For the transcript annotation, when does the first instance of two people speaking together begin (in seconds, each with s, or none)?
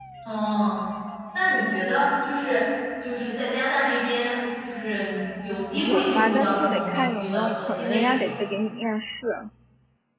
5.7 s